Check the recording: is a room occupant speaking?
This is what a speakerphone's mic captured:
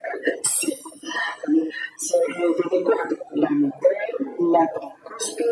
No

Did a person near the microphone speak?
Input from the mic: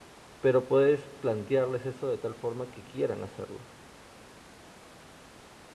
Yes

